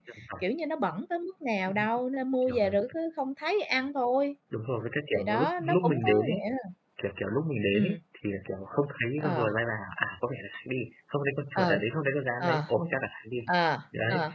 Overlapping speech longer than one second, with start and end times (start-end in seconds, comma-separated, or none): 5.1-6.4